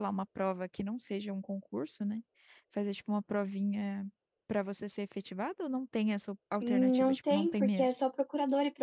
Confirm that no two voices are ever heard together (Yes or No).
No